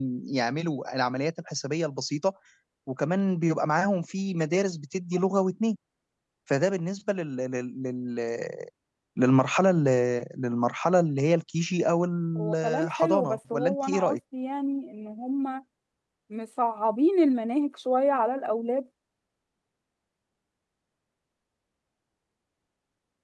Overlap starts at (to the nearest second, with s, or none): 12 s